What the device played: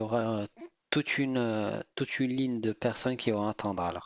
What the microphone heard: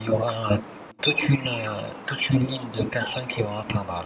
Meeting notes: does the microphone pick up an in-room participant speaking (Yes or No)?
No